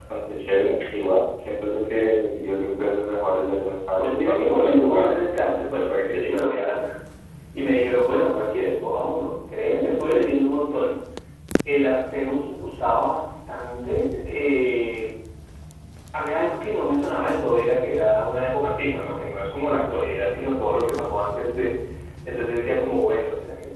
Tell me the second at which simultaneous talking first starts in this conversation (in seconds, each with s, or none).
4.0 s